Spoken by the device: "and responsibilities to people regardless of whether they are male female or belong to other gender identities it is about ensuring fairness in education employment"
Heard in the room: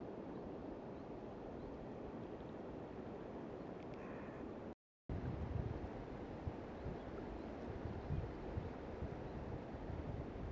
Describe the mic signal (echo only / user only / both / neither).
neither